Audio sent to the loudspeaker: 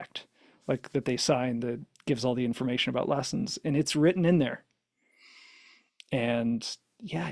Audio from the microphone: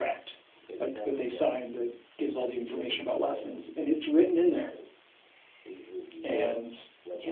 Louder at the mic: echo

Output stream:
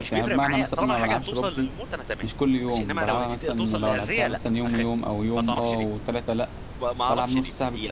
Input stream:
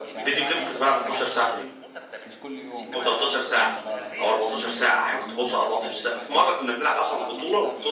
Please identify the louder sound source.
user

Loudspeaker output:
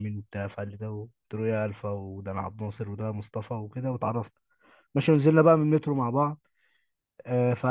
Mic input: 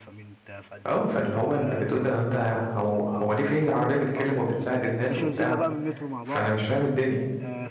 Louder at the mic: user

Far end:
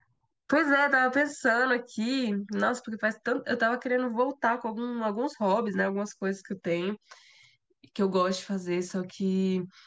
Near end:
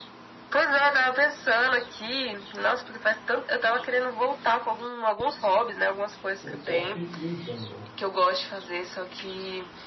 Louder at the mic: echo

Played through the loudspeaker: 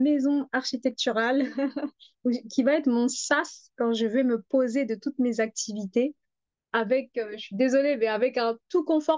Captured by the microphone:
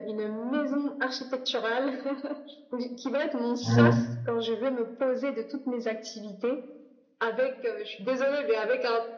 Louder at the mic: user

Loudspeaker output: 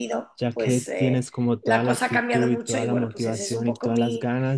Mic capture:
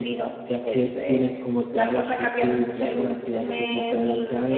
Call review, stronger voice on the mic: echo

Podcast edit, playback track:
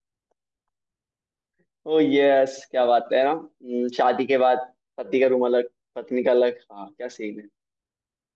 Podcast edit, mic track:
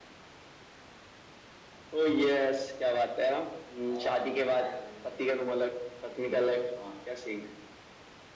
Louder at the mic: echo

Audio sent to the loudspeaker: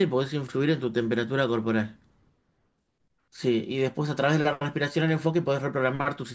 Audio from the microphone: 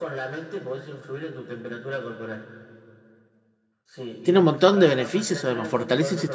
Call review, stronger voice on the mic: user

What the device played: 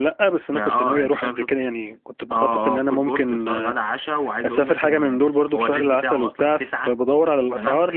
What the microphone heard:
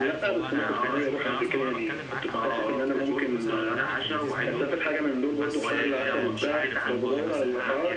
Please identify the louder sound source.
echo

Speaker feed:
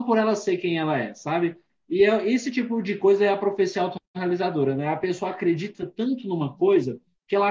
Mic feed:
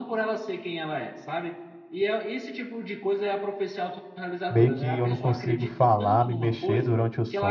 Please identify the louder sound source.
user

